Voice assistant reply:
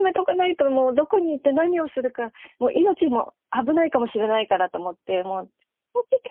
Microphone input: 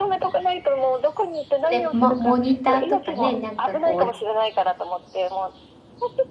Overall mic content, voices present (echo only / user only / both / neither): both